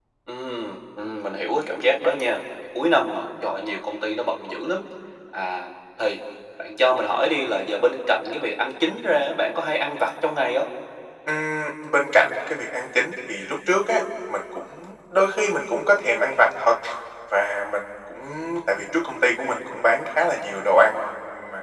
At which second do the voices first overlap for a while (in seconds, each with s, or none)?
none